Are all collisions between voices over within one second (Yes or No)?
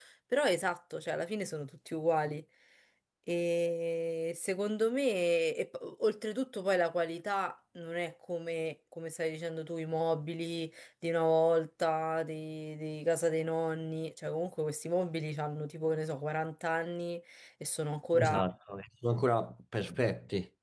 Yes